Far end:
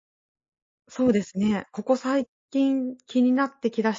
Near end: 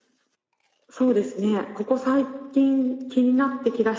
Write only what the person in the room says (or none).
none